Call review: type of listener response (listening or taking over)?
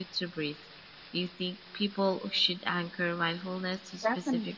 taking over